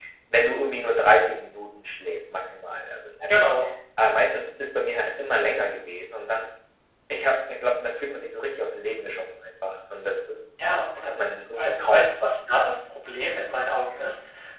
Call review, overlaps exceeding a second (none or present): none